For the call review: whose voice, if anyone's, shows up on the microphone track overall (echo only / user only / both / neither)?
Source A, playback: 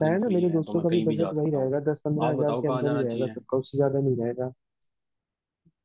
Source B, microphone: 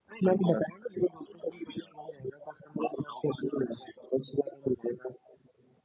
echo only